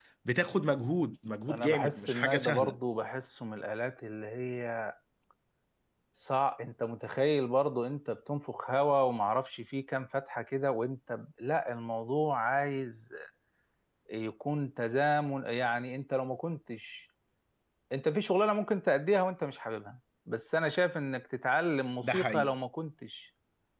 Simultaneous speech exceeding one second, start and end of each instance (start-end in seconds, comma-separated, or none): 1.5-2.8